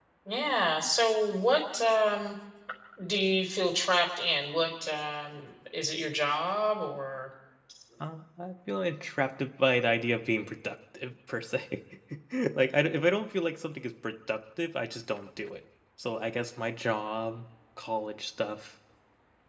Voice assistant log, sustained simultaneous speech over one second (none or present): none